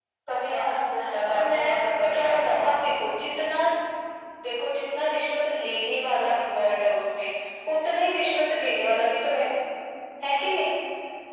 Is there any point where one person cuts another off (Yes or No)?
Yes